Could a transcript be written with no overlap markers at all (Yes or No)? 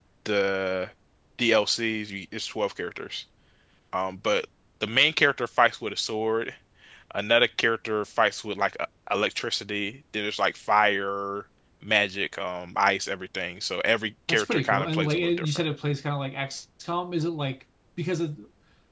No